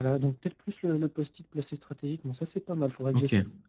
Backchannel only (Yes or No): No